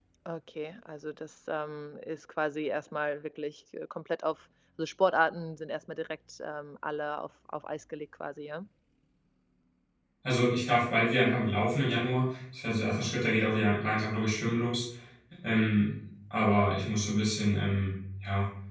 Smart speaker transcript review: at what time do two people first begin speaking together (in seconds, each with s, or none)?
none